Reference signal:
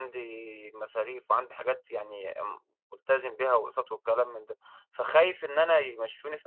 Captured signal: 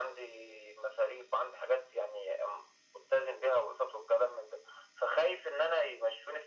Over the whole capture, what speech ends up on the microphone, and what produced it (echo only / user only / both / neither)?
echo only